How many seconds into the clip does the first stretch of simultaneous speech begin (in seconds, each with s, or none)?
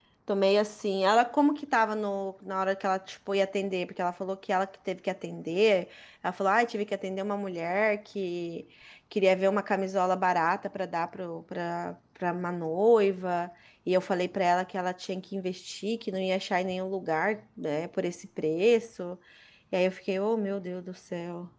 none